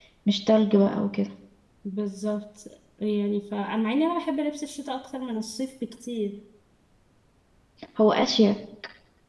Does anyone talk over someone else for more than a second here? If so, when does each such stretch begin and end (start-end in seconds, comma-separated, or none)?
none